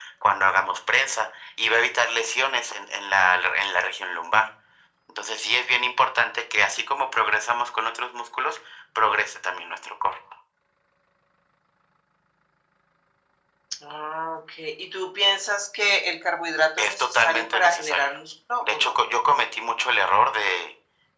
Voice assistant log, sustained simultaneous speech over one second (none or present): present